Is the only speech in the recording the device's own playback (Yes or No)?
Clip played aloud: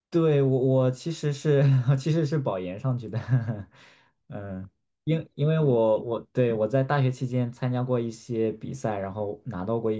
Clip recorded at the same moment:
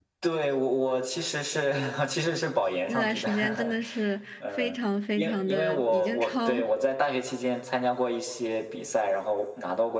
No